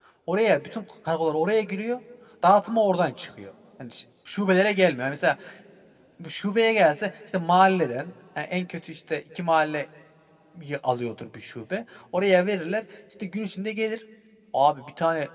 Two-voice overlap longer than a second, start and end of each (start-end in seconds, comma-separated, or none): none